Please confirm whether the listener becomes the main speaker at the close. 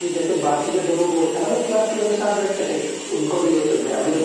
No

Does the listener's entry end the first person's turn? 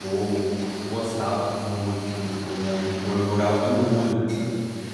No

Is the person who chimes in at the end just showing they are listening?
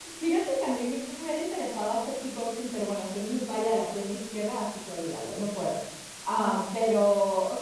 Yes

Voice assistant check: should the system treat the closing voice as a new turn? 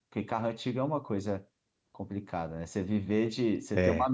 No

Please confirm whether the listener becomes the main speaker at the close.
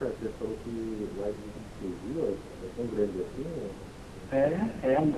Yes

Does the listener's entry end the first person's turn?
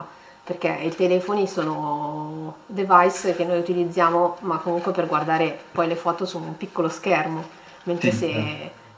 No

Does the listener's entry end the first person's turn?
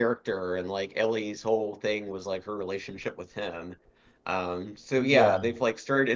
No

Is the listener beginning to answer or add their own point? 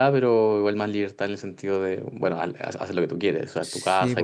Yes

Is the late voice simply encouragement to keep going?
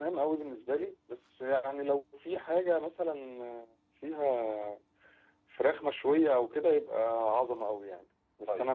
Yes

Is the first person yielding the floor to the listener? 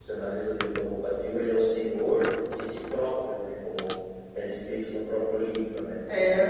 Yes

